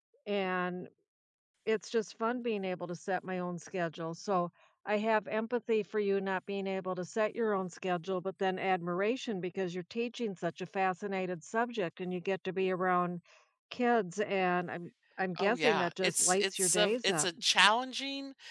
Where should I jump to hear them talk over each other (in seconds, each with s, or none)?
15.4 s